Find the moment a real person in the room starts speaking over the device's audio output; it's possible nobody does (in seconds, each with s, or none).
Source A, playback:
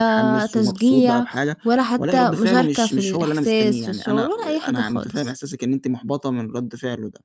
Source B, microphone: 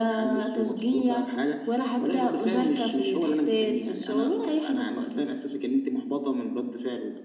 none